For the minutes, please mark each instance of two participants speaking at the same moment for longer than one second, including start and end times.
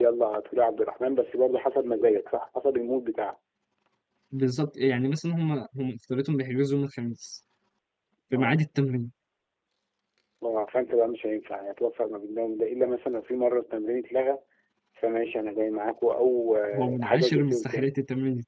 16.7-18.0

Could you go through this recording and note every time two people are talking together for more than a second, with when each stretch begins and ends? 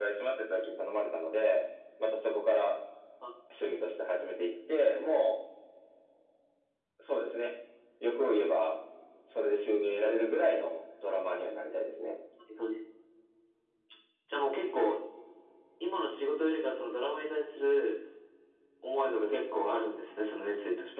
none

